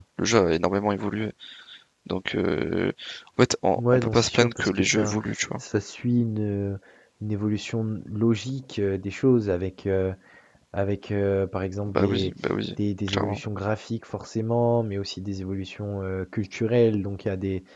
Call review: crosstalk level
present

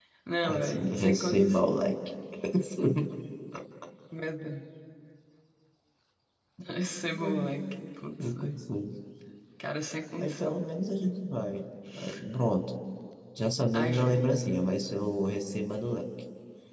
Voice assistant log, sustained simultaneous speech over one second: present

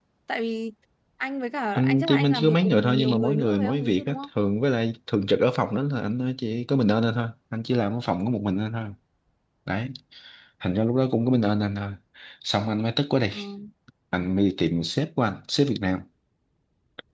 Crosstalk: present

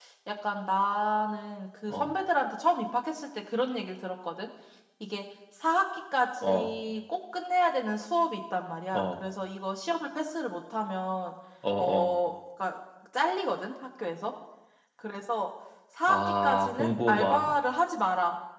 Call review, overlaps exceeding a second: present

